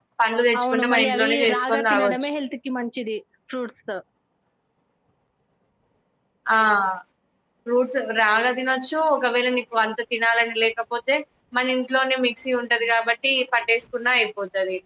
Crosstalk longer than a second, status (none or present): present